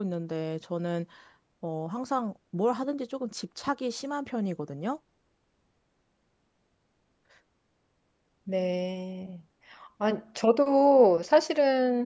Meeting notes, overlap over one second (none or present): none